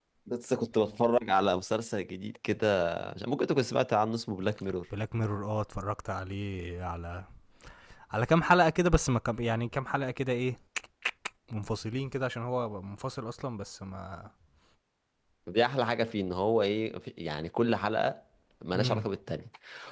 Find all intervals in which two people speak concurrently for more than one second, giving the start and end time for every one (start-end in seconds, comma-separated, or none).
none